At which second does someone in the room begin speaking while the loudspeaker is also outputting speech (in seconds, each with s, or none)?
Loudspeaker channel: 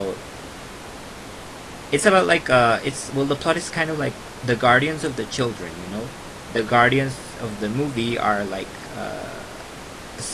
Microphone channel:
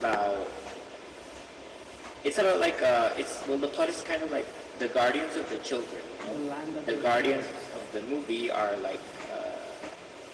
6.2 s